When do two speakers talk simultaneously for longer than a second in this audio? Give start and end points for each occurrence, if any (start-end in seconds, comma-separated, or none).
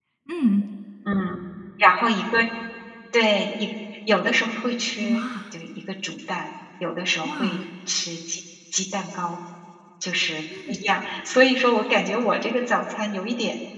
none